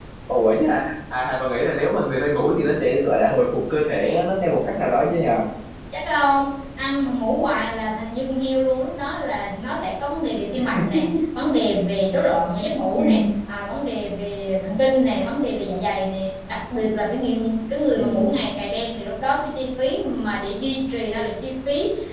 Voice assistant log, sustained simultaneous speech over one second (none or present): none